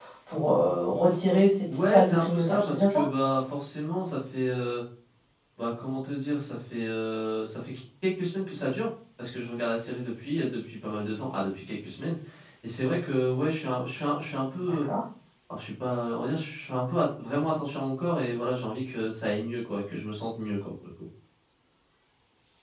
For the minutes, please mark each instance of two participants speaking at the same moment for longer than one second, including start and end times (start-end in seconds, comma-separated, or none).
1.7-3.0